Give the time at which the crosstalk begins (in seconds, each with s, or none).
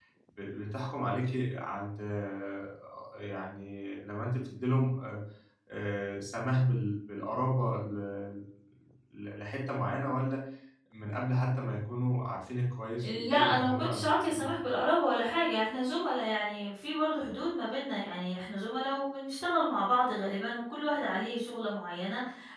13.0 s